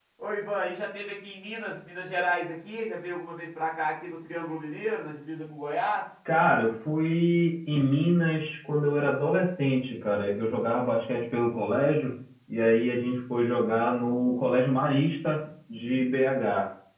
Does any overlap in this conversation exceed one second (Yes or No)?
No